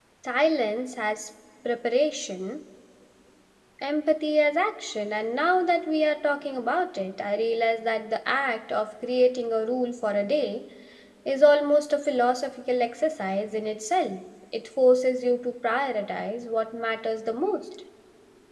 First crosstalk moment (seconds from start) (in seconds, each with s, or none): none